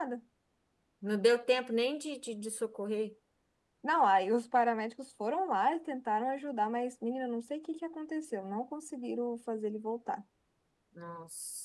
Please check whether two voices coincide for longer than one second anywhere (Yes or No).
No